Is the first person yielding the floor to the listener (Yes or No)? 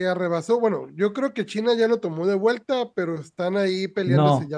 Yes